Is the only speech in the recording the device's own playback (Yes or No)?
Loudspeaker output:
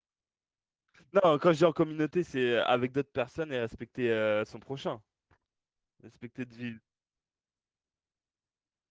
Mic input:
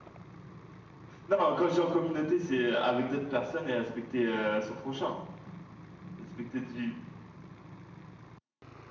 Yes